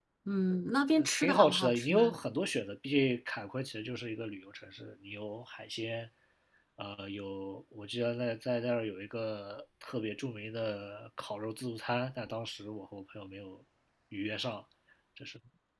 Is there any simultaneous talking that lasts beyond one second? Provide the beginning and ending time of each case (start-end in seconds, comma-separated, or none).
1.0-2.2